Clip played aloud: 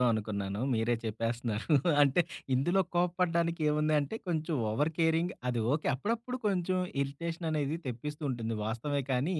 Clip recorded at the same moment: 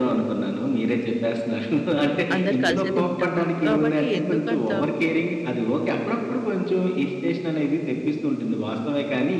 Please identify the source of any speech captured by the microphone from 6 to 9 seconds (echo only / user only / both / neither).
echo only